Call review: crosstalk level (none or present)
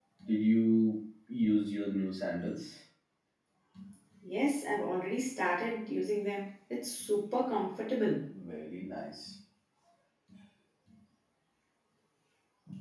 none